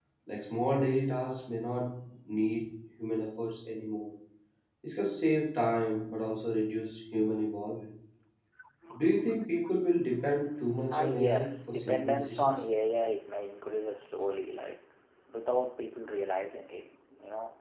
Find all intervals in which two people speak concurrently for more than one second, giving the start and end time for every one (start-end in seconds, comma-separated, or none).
10.9-12.6